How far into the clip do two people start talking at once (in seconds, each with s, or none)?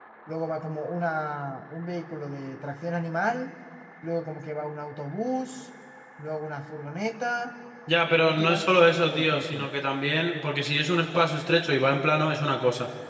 8.1 s